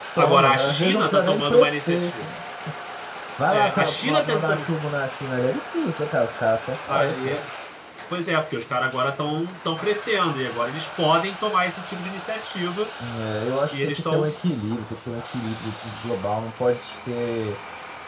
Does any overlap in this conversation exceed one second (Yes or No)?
Yes